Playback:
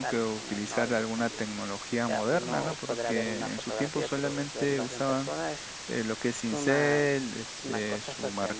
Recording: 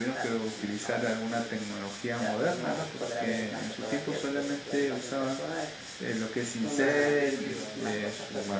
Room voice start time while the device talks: 6.8 s

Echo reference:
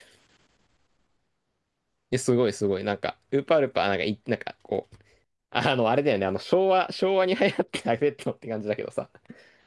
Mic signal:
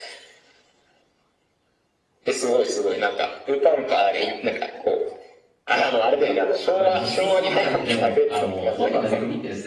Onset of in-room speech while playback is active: 6.7 s

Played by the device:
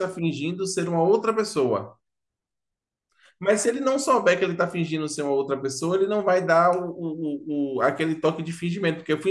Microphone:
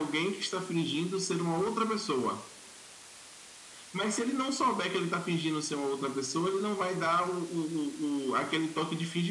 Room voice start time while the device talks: none

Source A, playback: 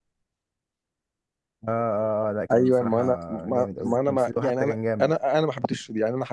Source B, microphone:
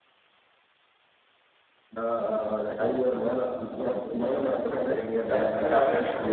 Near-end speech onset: 5.2 s

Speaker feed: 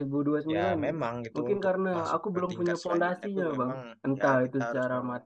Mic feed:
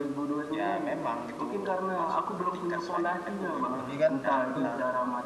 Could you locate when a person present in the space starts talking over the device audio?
3.8 s

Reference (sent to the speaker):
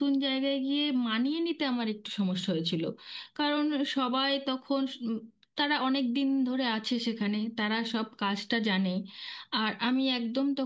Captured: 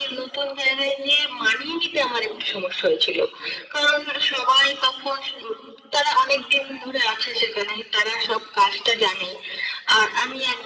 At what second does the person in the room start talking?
none

